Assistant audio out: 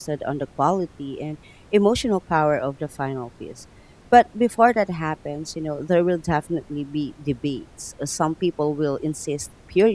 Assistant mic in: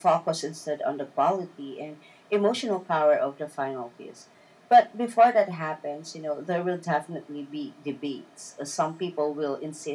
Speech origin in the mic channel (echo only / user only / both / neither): echo only